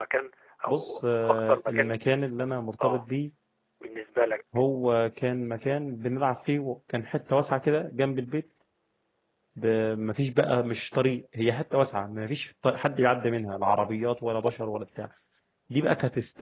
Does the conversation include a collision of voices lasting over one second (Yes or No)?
Yes